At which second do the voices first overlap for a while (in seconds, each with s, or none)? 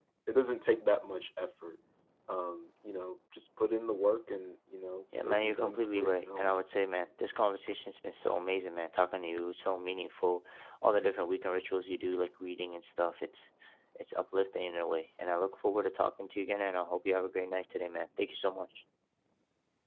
5.1 s